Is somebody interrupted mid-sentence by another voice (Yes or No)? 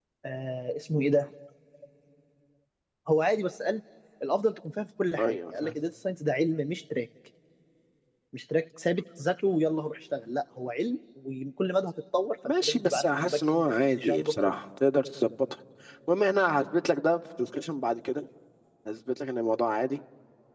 Yes